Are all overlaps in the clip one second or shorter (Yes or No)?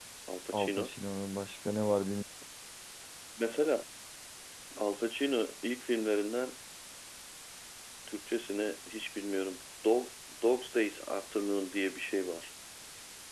Yes